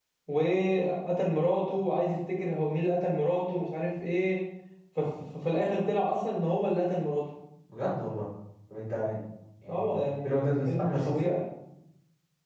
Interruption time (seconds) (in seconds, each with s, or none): 9.7 s